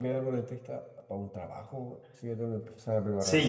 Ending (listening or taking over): taking over